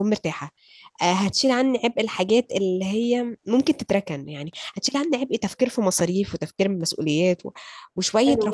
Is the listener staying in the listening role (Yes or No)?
No